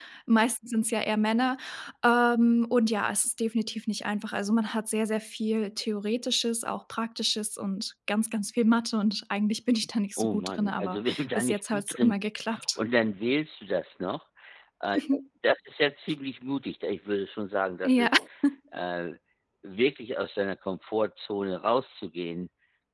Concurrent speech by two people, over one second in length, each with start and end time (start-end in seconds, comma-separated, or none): 10.2-12.1